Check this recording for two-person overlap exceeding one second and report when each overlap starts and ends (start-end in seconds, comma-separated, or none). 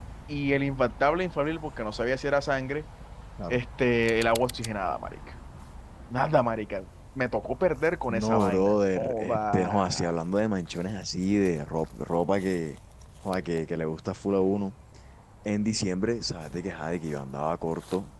8.1-10.1